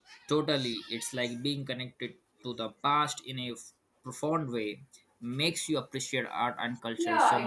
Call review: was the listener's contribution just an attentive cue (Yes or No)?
No